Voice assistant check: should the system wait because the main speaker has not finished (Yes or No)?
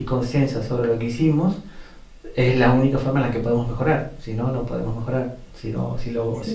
Yes